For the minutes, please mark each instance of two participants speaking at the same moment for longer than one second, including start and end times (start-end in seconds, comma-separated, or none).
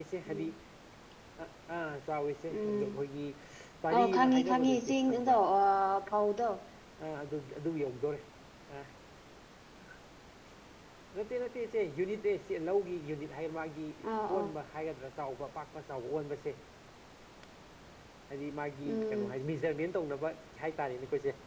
3.9-5.3